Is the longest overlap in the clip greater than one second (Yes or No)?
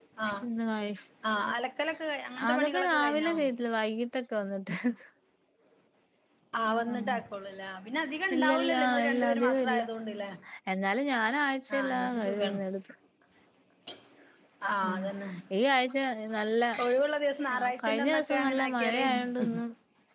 Yes